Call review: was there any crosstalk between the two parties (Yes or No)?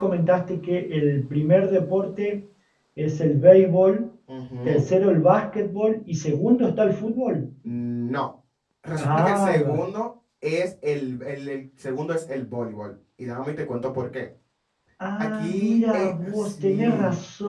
Yes